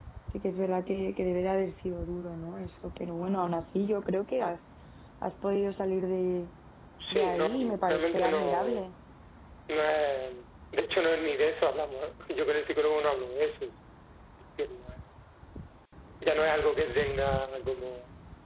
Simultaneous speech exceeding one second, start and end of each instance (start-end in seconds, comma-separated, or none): 7.1-8.9